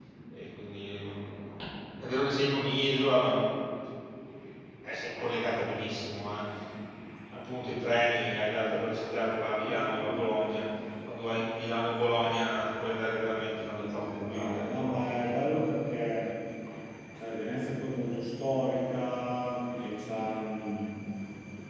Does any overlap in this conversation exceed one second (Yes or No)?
Yes